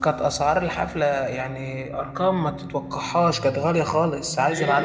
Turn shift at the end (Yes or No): No